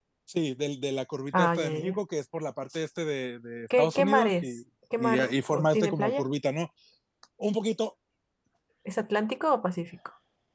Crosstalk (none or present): present